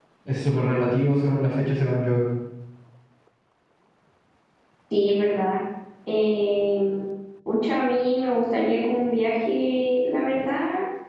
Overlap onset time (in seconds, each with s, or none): none